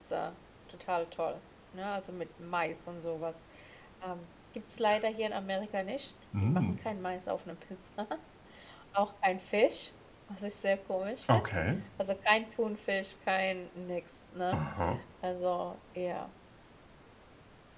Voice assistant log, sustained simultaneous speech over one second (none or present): none